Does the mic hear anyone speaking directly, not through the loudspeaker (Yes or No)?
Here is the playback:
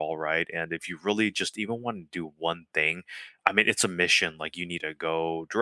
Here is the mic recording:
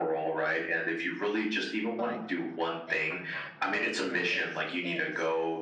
Yes